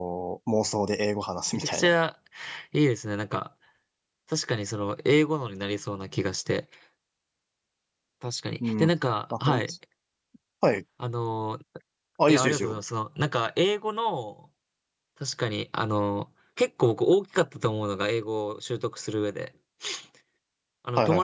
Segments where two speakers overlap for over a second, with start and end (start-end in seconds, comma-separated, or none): none